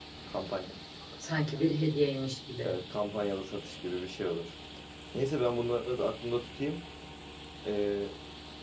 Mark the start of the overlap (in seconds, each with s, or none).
none